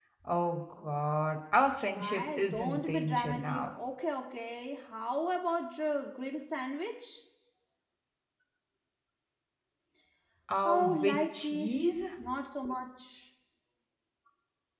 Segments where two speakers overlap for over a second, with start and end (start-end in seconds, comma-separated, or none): 1.9-3.7, 10.6-12.0